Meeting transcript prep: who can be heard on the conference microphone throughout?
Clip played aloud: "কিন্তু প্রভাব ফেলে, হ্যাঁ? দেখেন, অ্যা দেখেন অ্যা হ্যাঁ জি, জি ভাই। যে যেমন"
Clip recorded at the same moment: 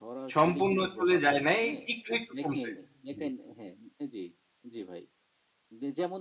both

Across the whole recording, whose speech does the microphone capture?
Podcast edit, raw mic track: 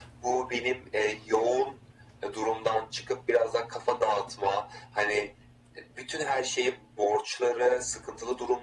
echo only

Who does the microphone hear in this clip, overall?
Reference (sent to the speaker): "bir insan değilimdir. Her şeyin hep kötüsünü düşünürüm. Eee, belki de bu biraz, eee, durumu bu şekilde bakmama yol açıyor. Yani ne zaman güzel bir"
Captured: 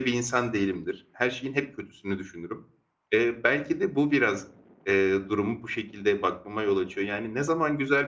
echo only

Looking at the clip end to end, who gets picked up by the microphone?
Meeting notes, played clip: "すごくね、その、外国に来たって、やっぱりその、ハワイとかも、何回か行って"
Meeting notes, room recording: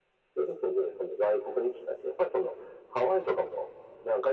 echo only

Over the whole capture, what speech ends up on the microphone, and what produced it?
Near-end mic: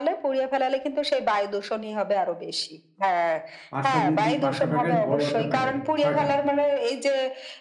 both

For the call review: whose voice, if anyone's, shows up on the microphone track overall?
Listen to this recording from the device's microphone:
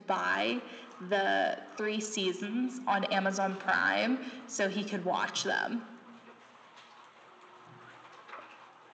echo only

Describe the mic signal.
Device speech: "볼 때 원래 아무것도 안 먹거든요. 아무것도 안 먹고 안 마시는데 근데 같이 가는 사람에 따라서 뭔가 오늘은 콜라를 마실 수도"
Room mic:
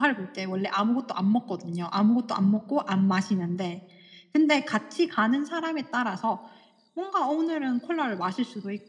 echo only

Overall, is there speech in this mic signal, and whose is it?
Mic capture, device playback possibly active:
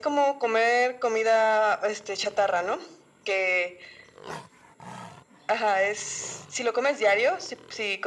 echo only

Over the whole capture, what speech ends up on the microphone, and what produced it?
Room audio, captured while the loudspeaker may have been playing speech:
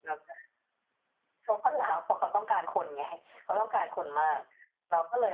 echo only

